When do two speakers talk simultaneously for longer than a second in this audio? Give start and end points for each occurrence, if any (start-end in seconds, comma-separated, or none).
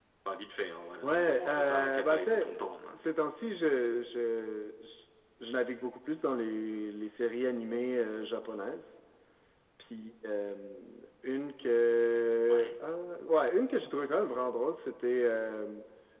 1.0-2.5